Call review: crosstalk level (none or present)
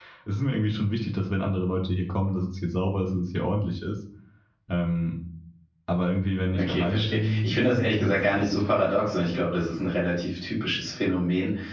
present